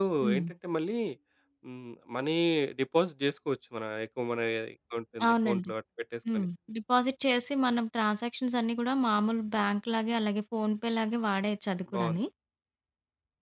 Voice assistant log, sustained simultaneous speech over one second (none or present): none